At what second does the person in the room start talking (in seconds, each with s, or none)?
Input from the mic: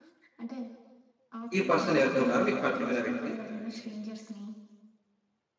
1.6 s